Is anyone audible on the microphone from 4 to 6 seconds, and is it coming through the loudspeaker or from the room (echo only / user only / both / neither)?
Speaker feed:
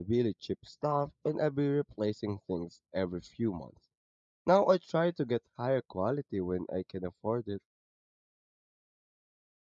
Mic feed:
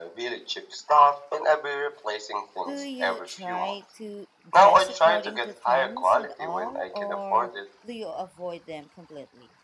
both